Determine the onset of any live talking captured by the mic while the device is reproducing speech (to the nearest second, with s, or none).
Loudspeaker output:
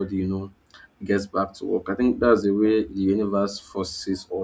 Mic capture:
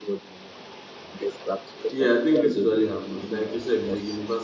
2 s